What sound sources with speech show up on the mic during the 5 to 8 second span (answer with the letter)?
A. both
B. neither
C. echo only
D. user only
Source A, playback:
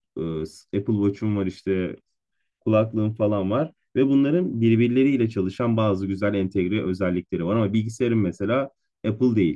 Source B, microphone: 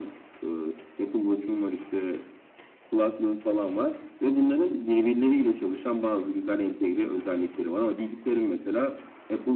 C